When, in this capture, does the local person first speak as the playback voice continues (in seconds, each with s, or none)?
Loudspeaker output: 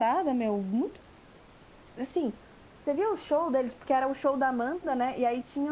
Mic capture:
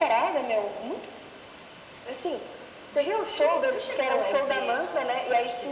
2.9 s